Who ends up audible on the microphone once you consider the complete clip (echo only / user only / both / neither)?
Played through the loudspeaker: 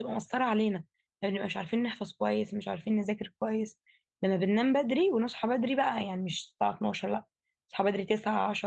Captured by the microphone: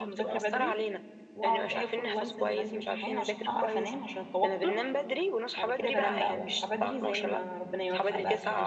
both